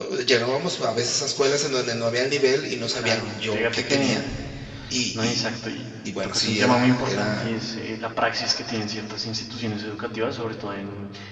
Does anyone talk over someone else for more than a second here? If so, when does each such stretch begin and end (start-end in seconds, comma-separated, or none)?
2.9-4.2, 6.2-7.5